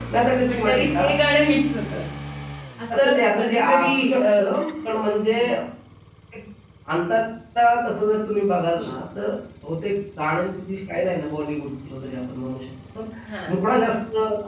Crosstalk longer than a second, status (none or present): present